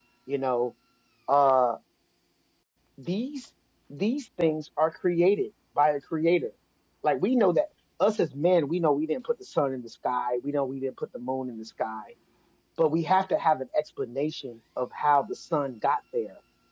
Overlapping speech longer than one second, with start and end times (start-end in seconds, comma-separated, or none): none